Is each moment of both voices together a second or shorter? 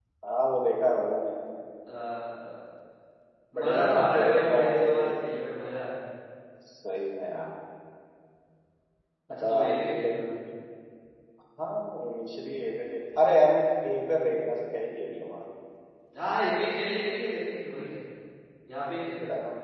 No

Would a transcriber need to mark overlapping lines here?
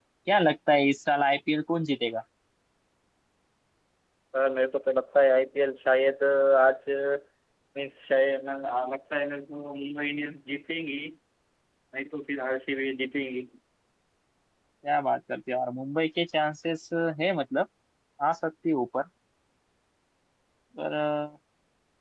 No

